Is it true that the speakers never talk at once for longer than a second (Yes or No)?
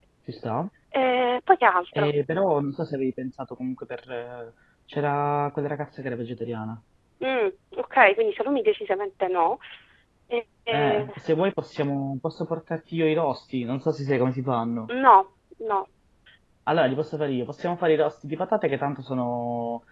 Yes